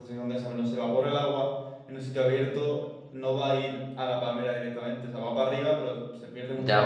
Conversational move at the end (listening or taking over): taking over